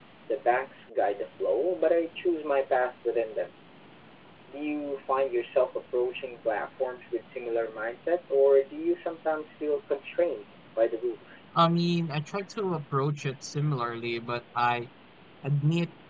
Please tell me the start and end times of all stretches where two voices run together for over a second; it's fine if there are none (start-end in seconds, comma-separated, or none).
none